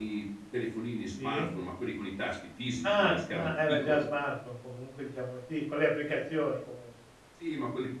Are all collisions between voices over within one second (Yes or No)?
No